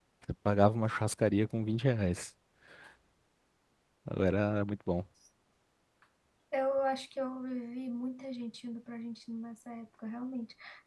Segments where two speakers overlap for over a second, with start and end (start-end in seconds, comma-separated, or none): none